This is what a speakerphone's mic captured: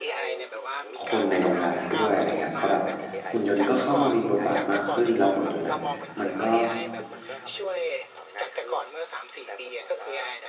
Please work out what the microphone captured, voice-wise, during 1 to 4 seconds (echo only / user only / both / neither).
both